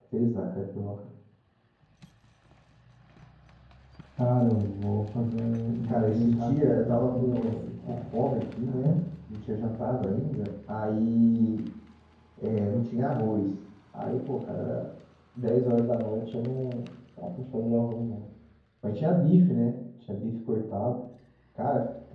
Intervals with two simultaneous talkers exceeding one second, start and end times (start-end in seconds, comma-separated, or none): 5.9-7.9